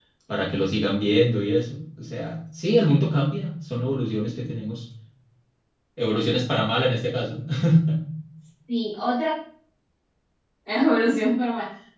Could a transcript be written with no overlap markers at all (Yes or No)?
Yes